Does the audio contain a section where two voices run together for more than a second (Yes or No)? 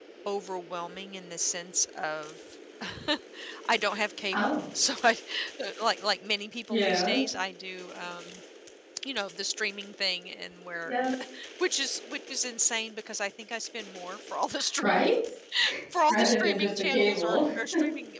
Yes